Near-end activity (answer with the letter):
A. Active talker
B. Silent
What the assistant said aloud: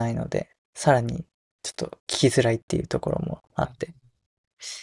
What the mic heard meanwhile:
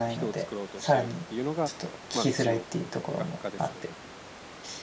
A